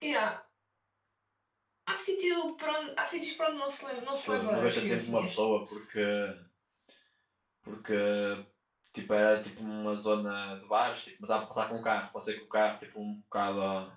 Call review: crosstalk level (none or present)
present